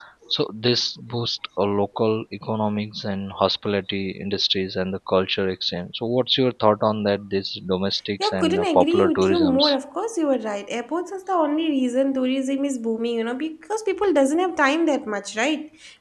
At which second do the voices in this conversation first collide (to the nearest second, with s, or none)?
8 s